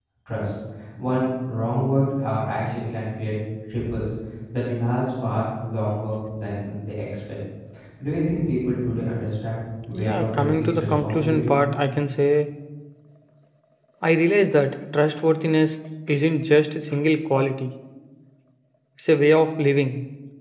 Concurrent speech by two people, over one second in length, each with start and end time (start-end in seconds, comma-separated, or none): 9.9-11.6